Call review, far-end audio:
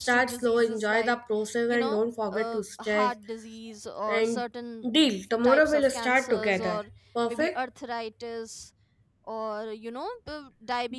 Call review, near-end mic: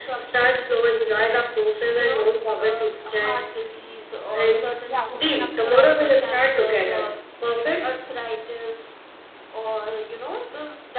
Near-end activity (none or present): present